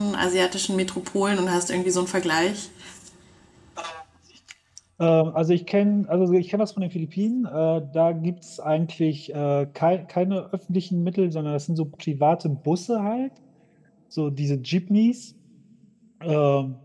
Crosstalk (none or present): none